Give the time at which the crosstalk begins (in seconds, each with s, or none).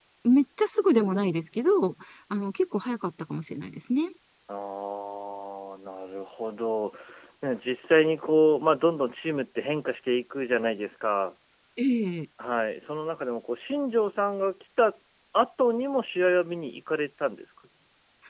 none